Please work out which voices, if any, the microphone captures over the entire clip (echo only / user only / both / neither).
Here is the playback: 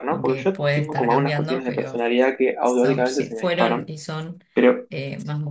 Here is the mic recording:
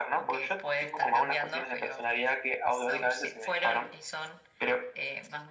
echo only